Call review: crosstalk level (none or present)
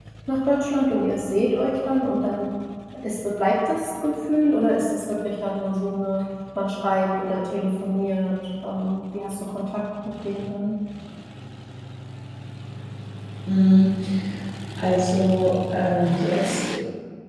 none